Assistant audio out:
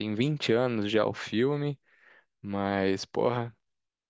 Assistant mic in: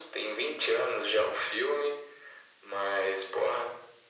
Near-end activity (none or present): none